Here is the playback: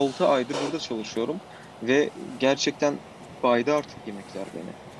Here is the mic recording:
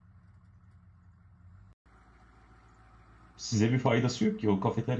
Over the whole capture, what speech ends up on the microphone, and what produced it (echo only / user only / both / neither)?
user only